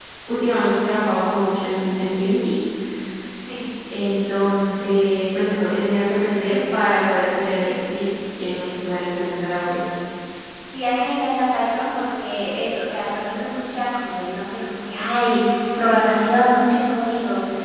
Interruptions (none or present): none